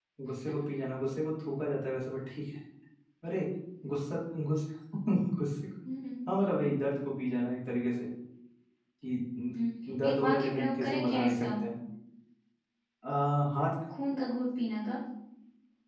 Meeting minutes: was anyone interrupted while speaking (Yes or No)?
Yes